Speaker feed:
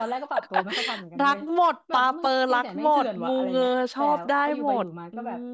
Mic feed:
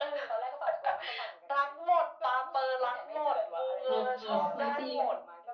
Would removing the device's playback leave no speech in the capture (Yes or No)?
No